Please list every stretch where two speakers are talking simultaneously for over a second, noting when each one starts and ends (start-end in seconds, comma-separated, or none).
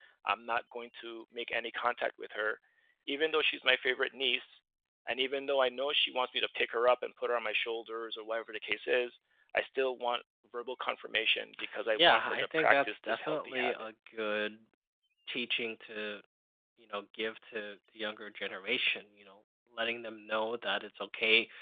11.9-13.7